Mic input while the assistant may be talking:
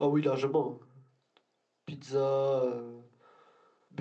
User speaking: Yes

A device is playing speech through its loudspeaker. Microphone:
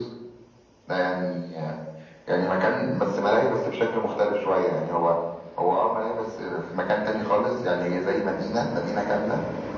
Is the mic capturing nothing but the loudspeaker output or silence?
Yes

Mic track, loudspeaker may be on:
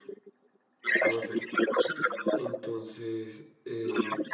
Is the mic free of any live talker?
No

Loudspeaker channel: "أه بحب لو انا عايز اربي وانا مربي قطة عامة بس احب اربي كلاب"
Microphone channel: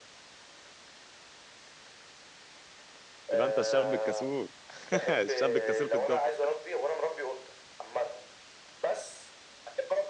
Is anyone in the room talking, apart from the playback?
Yes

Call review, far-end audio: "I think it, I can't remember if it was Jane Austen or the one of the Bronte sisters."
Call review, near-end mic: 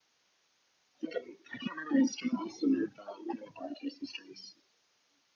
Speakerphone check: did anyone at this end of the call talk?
No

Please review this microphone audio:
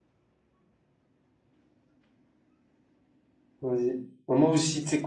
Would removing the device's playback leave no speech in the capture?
No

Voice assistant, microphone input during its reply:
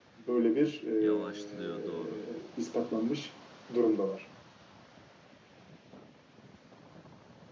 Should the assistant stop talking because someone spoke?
Yes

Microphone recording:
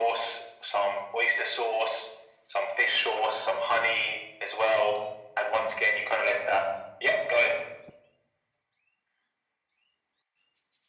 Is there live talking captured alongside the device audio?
No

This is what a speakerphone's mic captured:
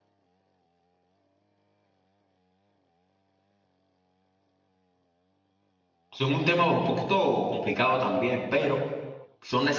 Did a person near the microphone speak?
Yes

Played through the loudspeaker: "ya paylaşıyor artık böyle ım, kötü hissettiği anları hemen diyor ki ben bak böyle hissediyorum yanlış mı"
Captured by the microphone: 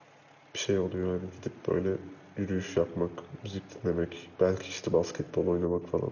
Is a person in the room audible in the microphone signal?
Yes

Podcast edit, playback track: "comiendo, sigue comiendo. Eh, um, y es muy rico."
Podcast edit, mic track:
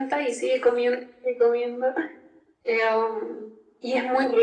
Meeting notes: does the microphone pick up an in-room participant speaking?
No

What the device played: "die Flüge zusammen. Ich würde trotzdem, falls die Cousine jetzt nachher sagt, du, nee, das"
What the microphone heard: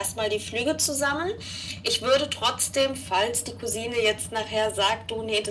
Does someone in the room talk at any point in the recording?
No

